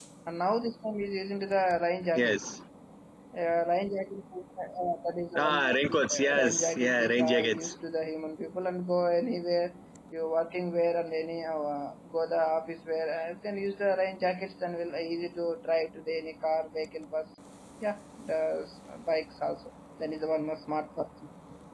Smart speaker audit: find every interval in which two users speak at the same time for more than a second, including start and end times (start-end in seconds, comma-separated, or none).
5.4-7.8